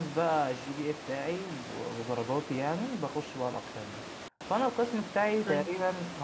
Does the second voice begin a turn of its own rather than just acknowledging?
No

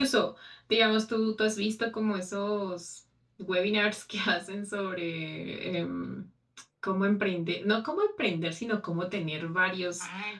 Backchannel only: No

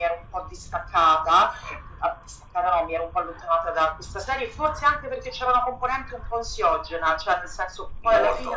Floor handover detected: No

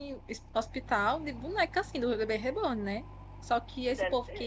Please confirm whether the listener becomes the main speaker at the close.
No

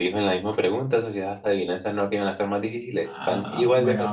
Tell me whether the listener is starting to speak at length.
Yes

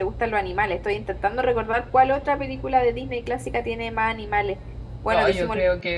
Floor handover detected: Yes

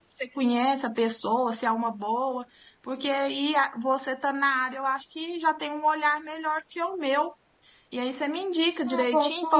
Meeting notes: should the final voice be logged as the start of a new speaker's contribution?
Yes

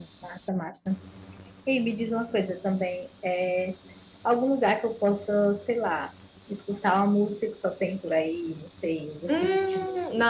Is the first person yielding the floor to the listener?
Yes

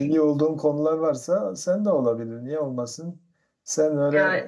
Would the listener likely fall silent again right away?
Yes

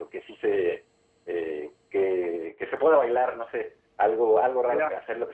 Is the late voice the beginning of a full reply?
No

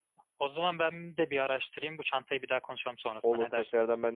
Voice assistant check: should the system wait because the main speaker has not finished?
No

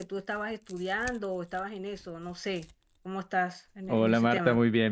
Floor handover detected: Yes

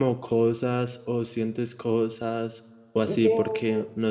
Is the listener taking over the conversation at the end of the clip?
No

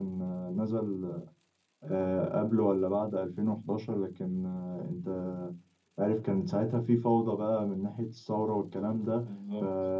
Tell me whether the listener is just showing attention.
Yes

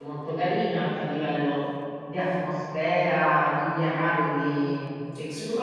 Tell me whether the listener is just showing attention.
No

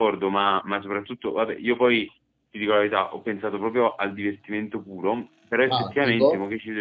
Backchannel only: Yes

